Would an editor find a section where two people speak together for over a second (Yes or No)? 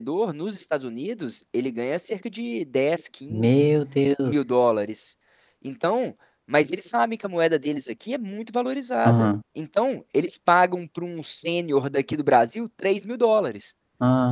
No